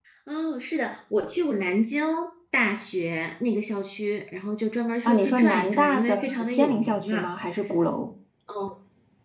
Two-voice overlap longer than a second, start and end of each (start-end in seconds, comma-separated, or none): 5.0-7.3